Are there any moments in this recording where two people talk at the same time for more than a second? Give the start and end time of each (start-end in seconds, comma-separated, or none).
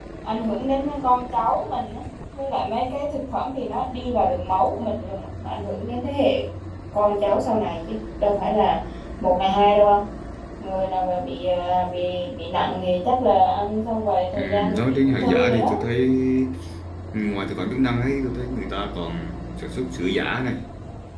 14.4-15.7